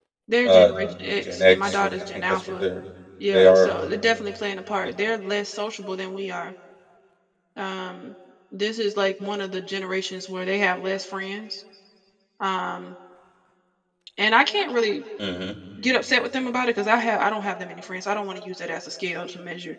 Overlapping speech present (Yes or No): Yes